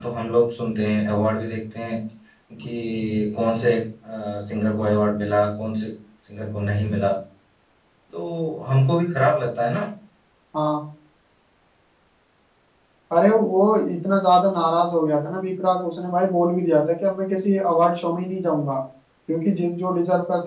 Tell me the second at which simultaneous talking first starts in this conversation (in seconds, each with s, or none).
none